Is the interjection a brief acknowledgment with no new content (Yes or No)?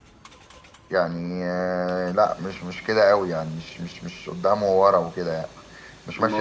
Yes